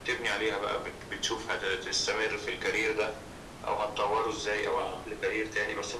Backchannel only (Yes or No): Yes